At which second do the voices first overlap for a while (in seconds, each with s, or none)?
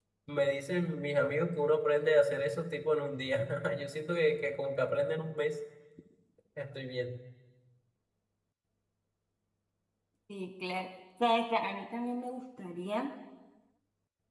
none